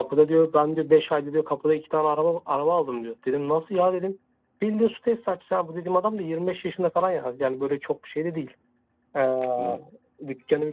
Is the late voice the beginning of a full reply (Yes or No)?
No